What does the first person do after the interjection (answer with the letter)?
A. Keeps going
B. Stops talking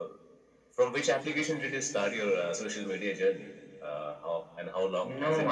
B